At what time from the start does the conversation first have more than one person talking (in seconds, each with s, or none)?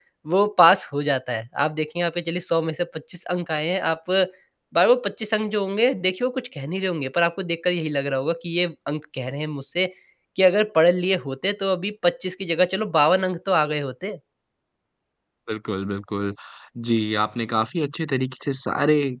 none